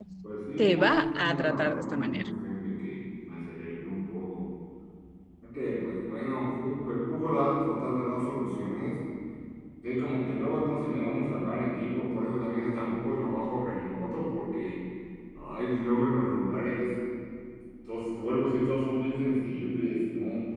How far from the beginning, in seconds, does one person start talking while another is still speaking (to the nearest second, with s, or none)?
1 s